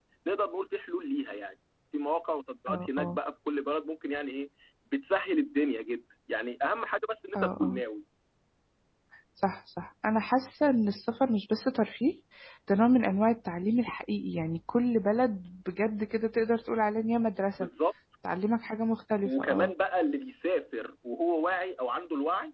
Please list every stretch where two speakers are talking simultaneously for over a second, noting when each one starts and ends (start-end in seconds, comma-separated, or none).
none